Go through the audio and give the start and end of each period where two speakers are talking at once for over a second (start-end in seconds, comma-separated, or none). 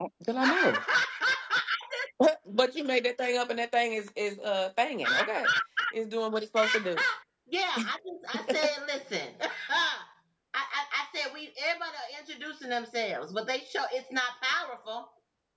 none